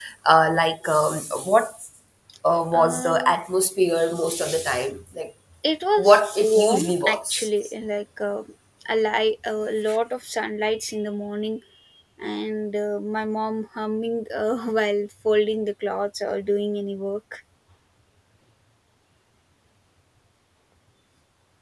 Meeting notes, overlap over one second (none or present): present